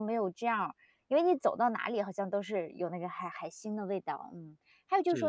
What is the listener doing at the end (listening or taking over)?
listening